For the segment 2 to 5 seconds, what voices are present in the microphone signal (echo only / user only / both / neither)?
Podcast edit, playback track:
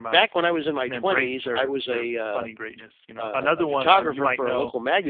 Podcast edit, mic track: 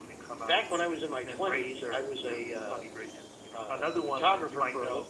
echo only